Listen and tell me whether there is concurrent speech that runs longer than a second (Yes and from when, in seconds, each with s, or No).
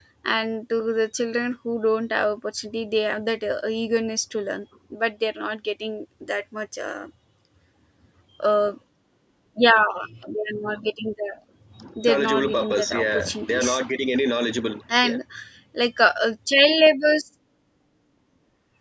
Yes, from 12.1 s